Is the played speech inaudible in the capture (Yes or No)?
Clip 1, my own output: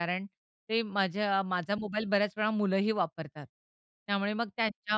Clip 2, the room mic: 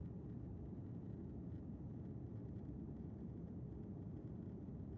Yes